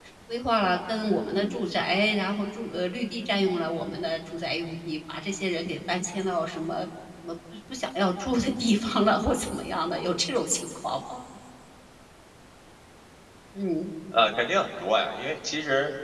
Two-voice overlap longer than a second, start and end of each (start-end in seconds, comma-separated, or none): none